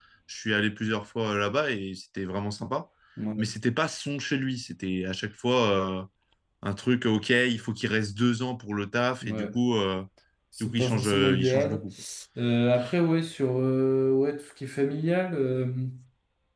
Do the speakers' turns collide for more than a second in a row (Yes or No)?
Yes